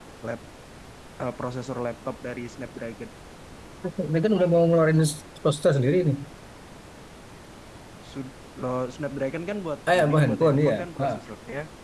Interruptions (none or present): present